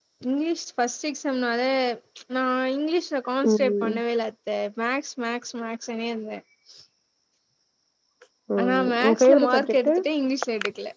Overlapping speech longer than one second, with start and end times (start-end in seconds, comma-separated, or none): 8.6-9.9